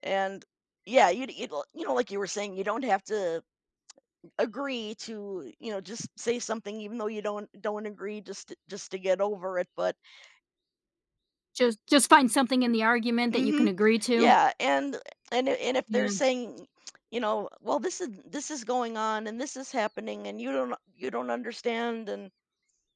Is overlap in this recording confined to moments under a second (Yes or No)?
Yes